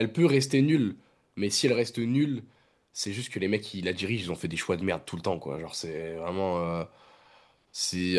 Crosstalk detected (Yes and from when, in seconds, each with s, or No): No